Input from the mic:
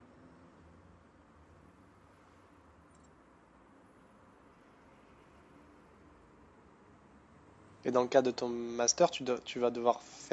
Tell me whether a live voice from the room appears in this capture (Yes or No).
Yes